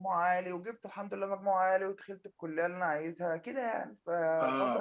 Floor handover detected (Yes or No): Yes